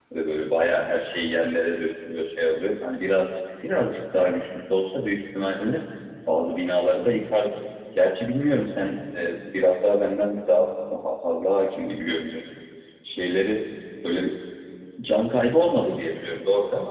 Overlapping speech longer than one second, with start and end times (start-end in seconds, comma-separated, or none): none